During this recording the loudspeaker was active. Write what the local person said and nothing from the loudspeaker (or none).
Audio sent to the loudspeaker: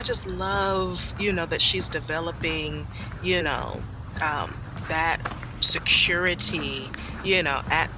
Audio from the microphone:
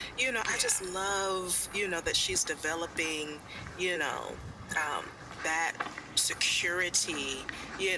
Yeah.